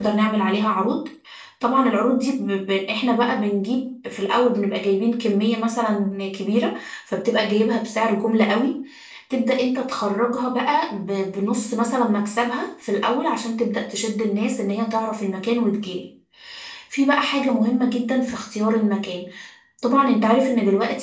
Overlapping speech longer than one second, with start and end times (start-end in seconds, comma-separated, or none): none